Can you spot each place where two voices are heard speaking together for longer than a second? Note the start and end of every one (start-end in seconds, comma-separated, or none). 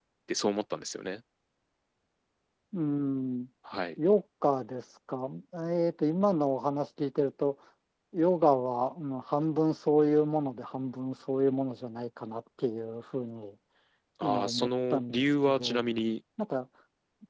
14.2-15.9